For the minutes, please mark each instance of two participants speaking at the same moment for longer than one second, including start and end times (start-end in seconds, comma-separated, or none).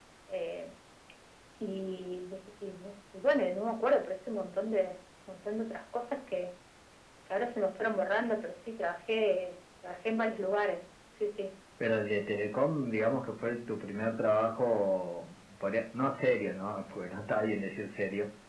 none